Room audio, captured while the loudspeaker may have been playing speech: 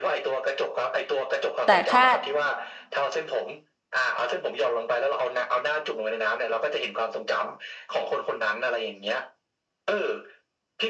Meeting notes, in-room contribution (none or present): present